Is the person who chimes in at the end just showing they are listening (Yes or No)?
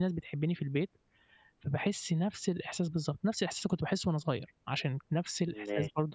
Yes